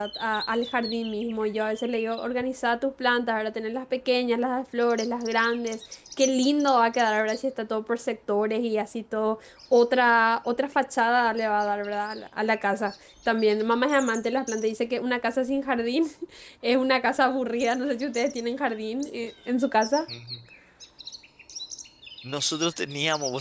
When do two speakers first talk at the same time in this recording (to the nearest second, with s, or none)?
none